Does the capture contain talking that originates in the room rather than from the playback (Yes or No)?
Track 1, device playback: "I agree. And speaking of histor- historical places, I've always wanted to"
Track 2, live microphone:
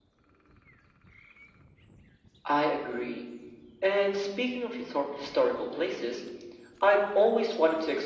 No